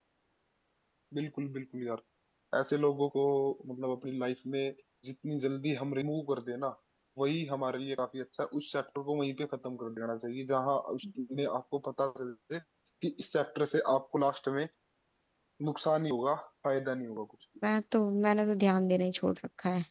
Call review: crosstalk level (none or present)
none